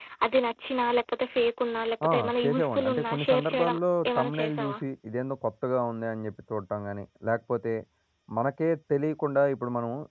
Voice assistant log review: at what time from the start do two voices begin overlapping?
2.0 s

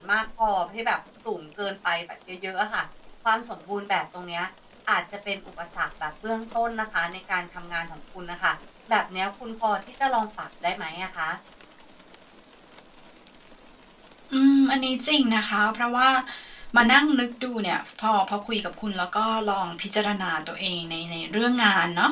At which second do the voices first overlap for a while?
none

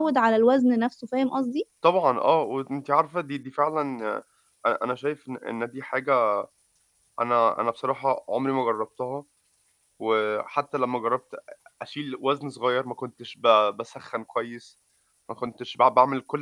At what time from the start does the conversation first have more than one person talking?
none

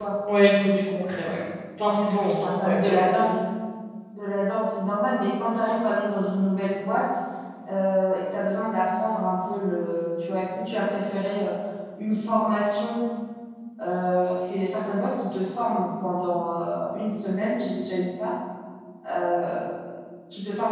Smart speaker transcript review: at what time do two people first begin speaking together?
1.8 s

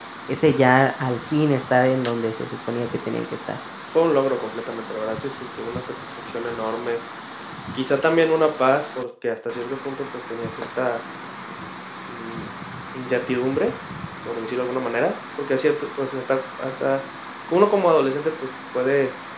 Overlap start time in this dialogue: none

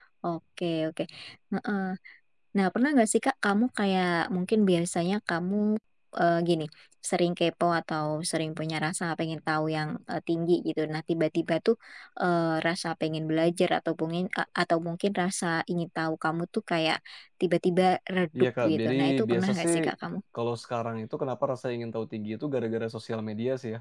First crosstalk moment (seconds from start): 18.4 s

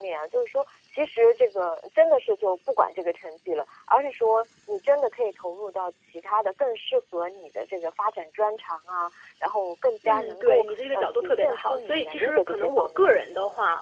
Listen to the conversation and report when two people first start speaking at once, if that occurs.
10.0 s

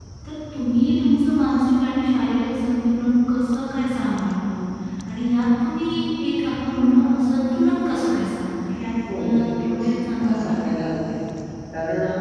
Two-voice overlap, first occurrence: 9.1 s

